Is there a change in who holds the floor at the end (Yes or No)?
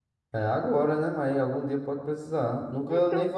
Yes